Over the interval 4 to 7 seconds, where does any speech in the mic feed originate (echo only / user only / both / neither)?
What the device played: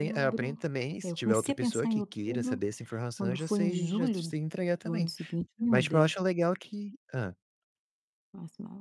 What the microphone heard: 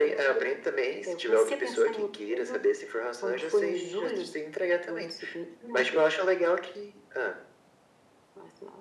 echo only